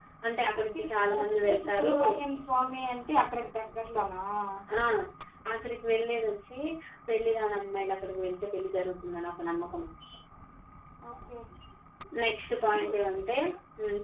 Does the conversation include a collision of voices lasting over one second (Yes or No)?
Yes